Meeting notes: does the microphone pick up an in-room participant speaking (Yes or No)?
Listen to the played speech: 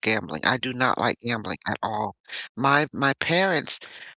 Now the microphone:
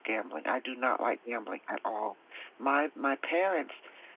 No